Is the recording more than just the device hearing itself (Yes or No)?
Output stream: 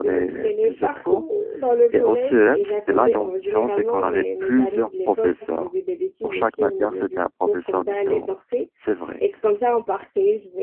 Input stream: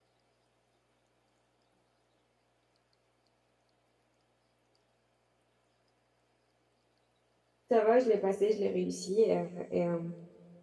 Yes